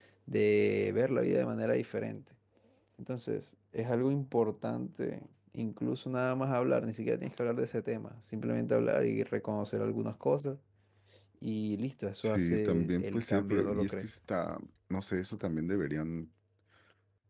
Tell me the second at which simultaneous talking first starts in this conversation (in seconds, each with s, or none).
12.2 s